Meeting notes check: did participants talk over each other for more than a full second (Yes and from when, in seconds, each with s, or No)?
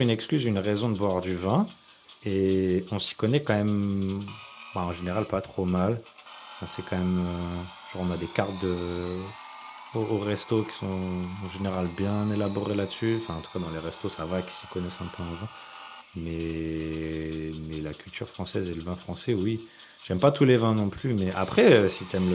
No